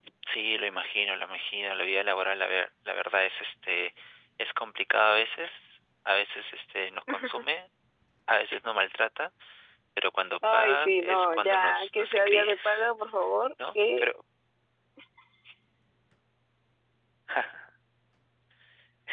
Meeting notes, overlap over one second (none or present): present